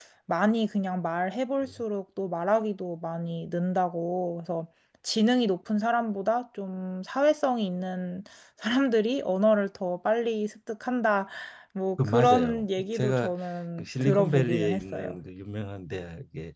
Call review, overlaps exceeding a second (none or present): present